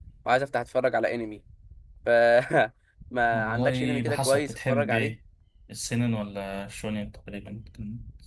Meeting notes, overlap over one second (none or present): present